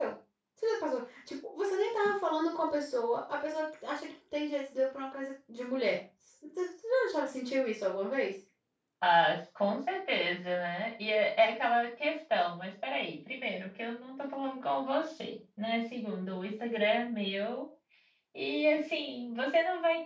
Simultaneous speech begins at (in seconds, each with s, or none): none